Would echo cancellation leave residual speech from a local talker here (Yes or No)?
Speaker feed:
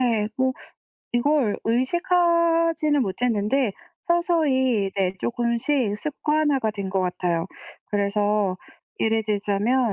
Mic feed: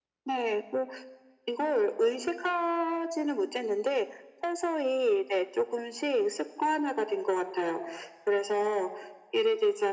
No